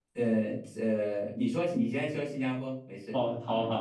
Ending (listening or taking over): taking over